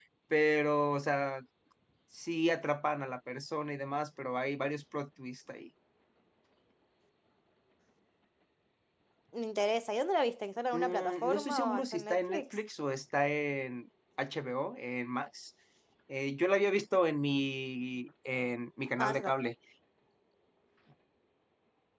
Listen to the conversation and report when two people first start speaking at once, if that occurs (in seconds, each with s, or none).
10.7 s